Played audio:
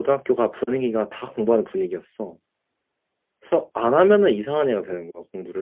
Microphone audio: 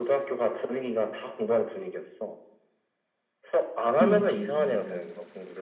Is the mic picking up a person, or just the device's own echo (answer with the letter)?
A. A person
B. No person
A